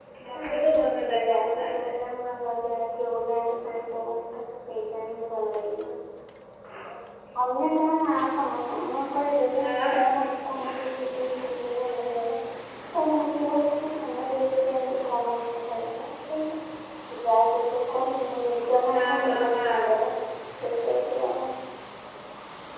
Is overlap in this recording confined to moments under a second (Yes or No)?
No